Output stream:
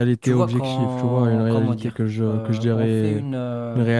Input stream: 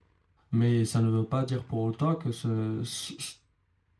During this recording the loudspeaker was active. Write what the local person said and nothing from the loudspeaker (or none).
mais ça ne veut pas dire pour autant que ce, ce,